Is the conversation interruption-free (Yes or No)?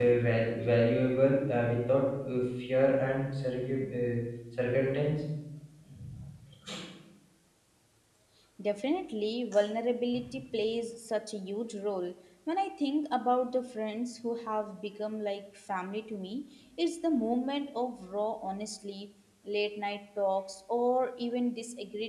Yes